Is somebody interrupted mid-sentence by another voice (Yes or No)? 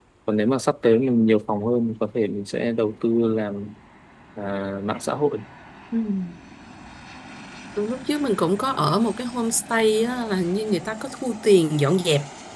No